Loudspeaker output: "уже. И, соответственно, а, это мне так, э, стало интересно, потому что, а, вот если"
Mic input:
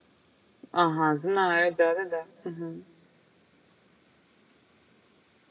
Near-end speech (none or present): present